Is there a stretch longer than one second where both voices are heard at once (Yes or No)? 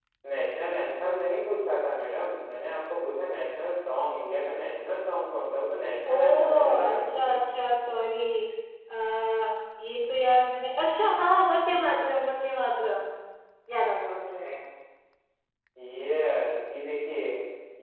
Yes